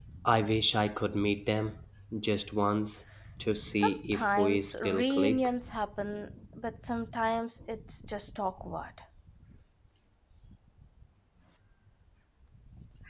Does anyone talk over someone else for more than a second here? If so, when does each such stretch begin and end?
3.6-5.5

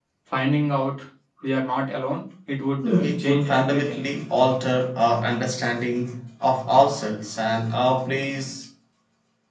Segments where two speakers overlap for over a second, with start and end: 2.8-4.0

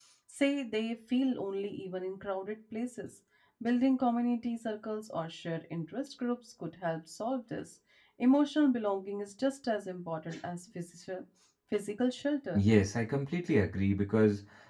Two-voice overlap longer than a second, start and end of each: none

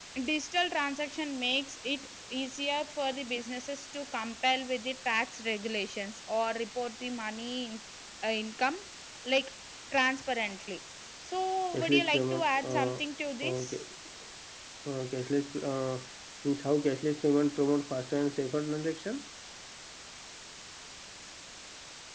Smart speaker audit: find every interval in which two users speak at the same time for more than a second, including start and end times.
11.7-13.0

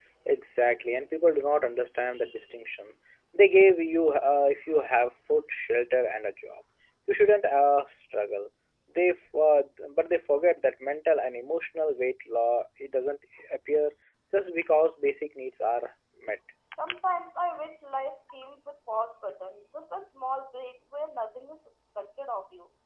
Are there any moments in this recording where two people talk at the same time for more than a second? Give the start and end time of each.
none

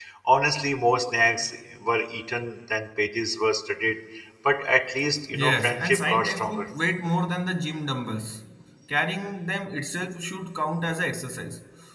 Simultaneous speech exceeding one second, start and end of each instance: 5.3-6.7

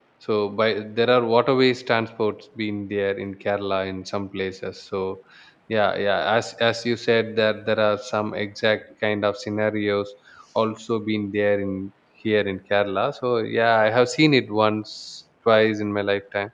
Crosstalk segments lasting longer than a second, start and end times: none

